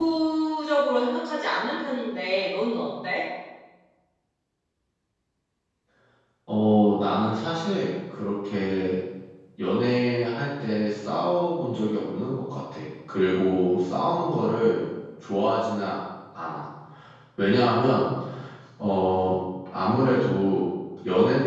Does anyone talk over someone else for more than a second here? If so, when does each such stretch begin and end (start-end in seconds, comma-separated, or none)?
none